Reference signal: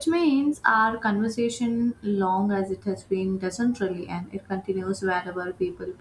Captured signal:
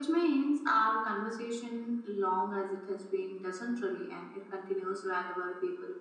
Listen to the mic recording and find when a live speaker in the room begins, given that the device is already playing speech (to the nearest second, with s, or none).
none